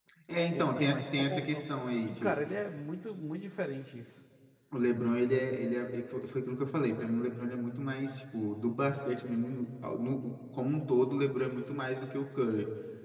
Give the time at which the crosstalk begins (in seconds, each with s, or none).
0.5 s